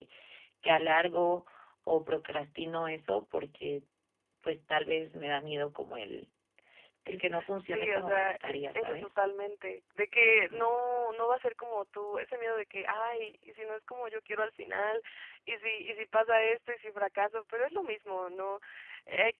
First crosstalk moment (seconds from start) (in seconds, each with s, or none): 7.6 s